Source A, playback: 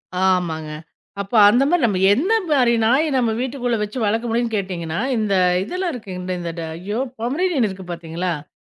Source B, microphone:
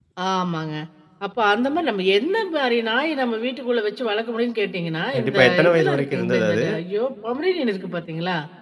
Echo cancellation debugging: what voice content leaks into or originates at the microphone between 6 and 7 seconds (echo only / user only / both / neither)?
both